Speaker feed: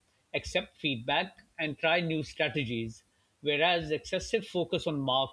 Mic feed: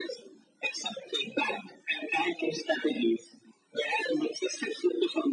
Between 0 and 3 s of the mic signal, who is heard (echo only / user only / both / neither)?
echo only